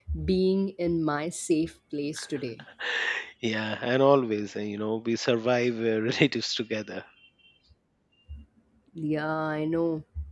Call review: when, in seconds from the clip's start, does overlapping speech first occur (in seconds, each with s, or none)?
none